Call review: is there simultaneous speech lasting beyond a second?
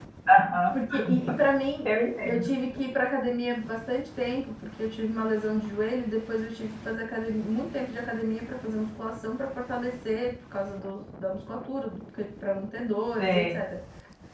No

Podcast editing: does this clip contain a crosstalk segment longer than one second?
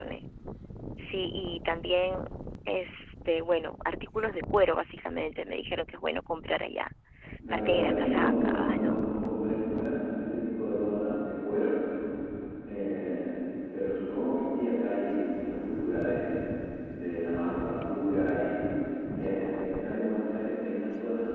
Yes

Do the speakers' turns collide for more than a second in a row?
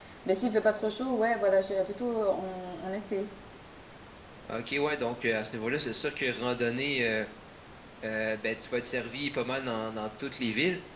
No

